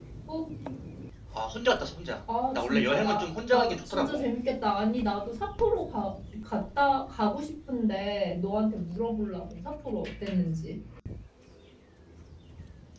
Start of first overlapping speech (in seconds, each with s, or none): 2.5 s